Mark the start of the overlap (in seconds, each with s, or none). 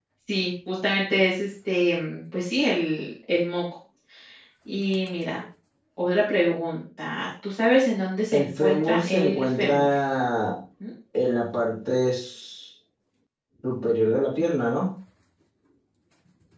8.3 s